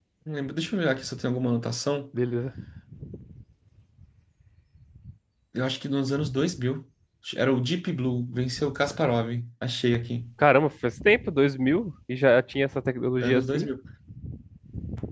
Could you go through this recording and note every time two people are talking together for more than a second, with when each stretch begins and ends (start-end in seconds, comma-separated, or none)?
none